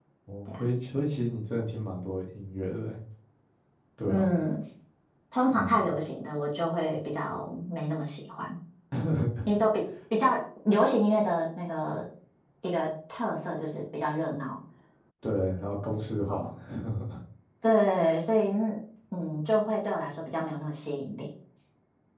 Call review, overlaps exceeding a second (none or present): none